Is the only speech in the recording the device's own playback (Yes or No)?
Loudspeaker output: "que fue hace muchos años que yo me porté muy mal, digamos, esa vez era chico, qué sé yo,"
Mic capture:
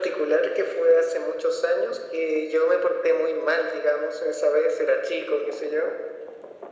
Yes